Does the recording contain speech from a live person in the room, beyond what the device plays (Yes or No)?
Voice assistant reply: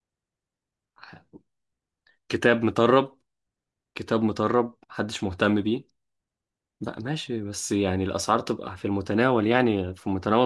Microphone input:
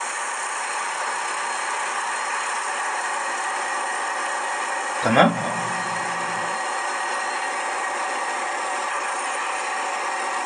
Yes